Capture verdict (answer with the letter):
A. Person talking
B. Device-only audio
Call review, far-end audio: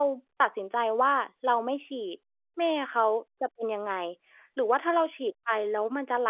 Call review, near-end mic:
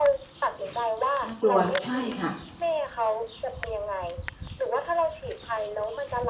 A